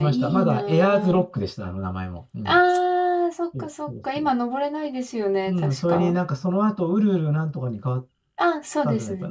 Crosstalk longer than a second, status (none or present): present